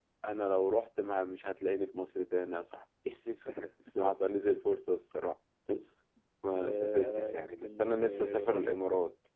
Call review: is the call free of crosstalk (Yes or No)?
No